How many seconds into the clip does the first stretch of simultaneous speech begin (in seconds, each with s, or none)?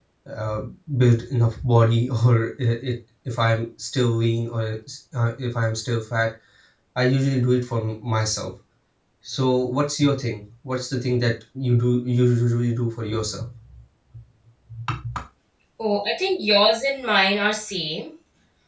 none